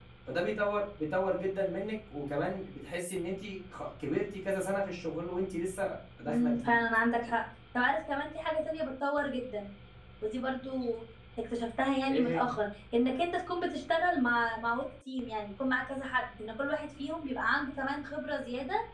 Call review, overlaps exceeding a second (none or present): none